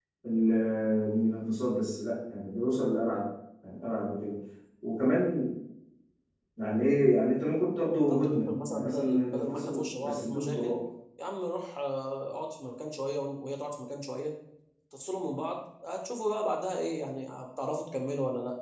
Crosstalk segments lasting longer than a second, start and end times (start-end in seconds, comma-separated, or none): 8.1-10.8